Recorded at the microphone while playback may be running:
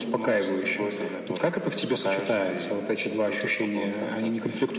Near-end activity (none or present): none